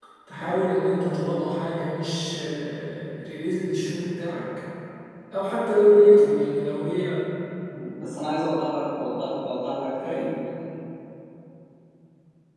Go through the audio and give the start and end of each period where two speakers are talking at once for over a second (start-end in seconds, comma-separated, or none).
none